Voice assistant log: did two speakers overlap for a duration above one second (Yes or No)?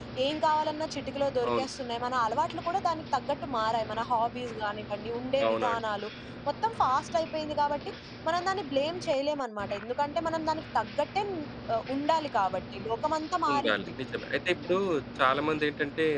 No